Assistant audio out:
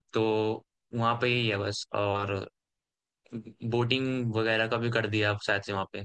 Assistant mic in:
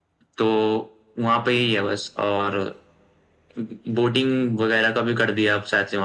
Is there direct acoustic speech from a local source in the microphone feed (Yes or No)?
No